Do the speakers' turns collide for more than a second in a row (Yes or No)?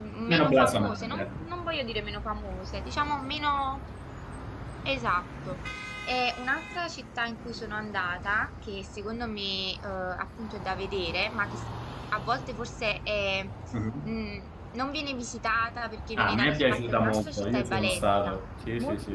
Yes